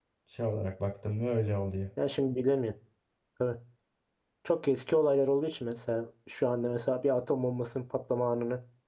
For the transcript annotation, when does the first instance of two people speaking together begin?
none

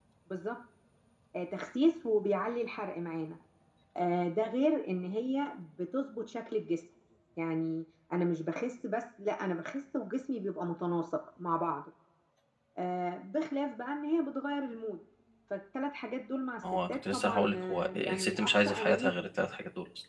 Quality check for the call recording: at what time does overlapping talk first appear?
17 s

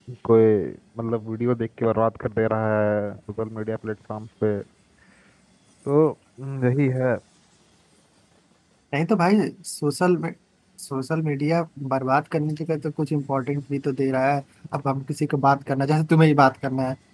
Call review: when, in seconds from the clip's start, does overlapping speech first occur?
none

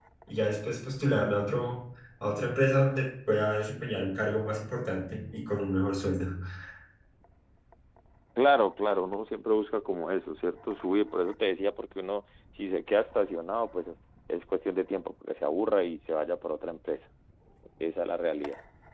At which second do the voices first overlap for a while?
none

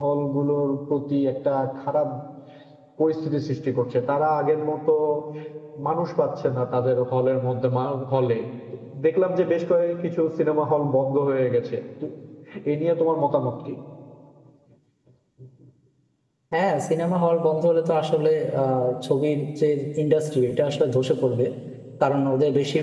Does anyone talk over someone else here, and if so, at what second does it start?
none

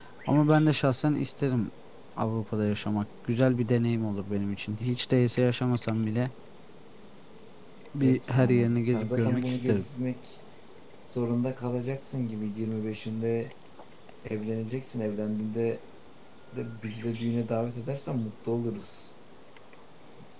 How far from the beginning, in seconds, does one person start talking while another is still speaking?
8 s

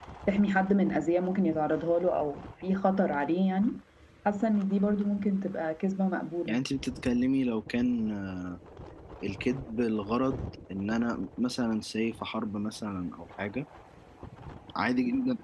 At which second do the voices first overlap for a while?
none

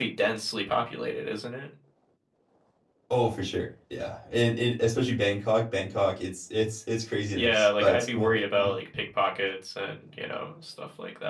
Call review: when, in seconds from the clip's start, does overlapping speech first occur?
7 s

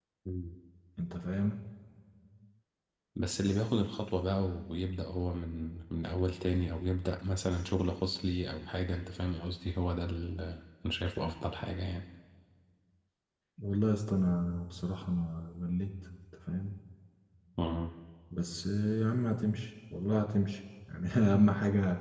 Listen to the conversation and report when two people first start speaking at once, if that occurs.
none

